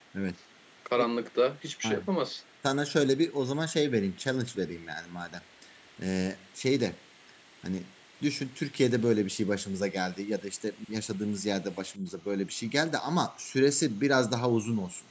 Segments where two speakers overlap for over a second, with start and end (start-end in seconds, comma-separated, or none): none